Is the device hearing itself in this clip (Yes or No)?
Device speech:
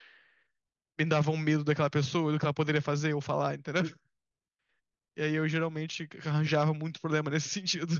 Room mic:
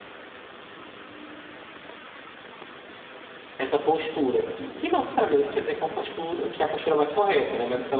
No